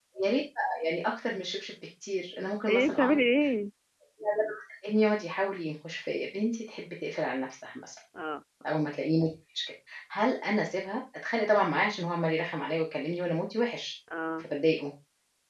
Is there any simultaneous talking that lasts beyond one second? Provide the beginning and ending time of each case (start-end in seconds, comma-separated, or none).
none